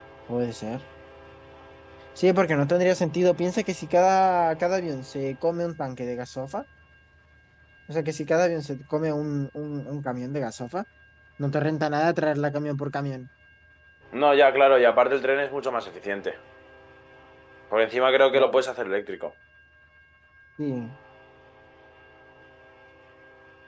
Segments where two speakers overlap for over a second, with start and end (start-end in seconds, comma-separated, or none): none